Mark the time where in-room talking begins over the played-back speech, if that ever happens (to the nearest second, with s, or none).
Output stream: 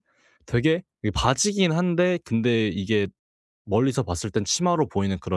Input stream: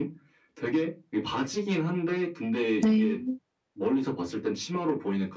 3 s